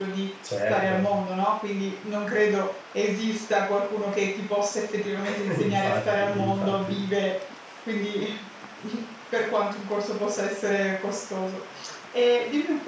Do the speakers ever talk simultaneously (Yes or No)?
Yes